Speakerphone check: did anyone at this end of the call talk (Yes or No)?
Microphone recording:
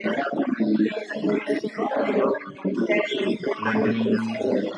Yes